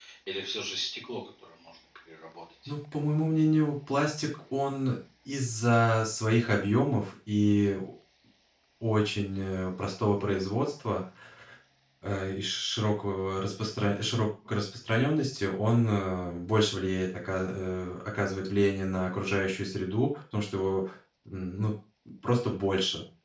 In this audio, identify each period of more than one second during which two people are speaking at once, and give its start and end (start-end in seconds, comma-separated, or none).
none